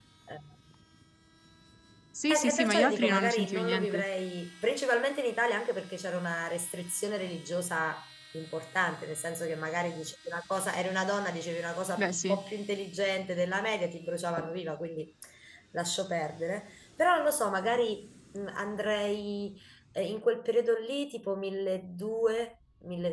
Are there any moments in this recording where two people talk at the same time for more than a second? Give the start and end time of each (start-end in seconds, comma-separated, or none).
2.3-4.0